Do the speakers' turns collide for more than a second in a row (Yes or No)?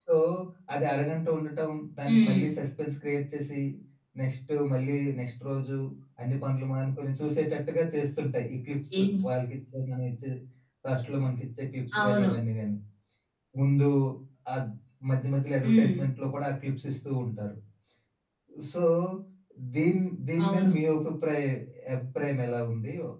No